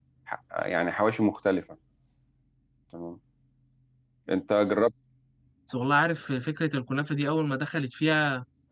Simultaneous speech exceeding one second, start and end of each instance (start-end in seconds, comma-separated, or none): none